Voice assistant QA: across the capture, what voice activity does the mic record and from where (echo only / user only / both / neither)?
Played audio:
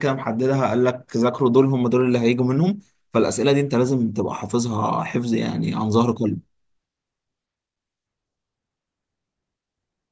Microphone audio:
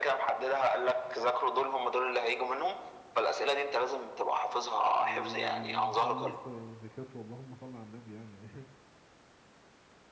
both